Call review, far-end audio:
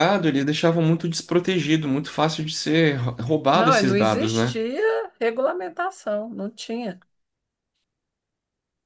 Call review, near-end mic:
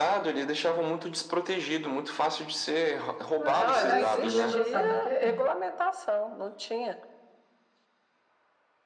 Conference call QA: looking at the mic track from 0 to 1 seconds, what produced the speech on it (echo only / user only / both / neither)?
echo only